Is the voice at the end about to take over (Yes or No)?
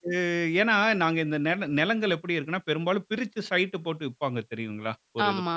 No